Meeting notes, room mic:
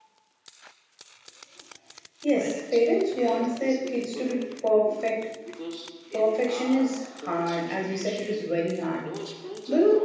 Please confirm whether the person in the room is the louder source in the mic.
Yes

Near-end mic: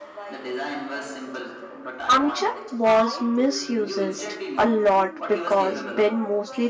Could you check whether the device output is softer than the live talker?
Yes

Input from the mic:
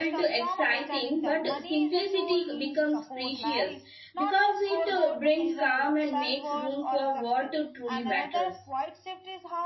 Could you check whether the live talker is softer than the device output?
No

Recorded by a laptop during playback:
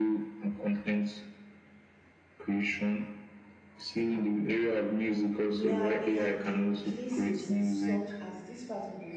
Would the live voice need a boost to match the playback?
Yes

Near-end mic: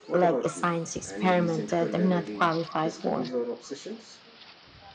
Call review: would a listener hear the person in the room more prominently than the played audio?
No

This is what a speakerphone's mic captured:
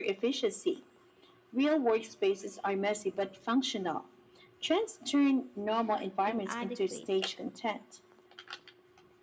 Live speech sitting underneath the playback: Yes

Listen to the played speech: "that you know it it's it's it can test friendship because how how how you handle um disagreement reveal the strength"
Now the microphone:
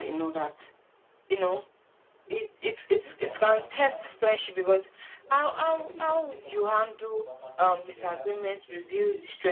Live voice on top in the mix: No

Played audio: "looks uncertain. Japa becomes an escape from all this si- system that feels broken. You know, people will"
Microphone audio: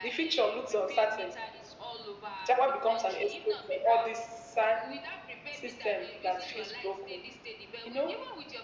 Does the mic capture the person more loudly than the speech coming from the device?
No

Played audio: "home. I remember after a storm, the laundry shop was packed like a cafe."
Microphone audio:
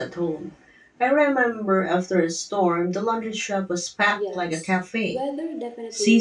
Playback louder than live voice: Yes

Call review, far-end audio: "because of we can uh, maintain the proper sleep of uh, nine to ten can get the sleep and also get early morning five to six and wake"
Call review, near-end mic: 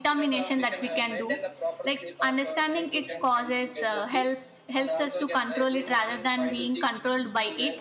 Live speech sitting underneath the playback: No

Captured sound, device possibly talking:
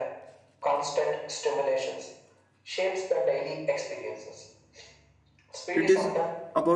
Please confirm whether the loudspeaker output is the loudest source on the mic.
No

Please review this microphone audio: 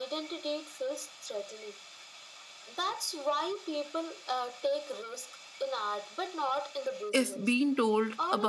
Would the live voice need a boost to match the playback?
No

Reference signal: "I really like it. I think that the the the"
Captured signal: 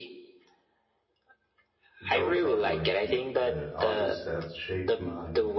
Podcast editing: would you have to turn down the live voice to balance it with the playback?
No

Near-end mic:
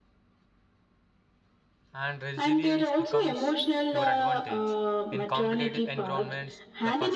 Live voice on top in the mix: No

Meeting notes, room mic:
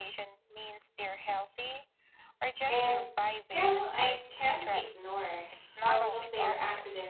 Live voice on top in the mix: Yes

